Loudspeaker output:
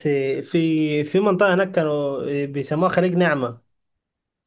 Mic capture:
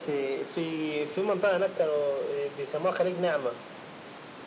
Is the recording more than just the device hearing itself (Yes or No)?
No